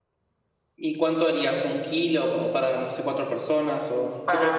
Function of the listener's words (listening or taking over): taking over